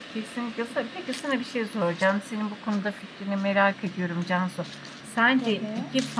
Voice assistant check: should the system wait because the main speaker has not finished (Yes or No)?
Yes